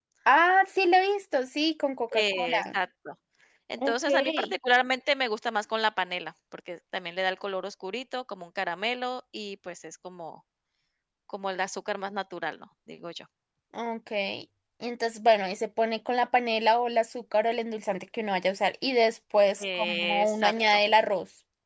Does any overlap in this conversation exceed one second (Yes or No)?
Yes